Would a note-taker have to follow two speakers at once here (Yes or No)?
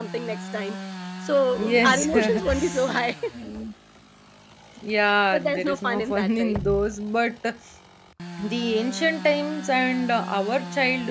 Yes